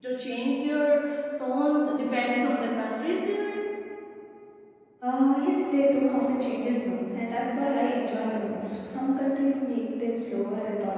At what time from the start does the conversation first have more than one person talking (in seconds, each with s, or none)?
none